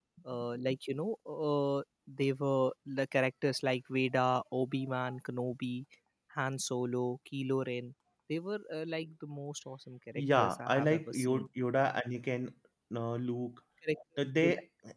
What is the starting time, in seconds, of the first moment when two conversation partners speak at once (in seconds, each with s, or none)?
10.2 s